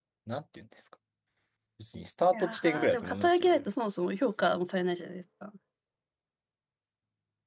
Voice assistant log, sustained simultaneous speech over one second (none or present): present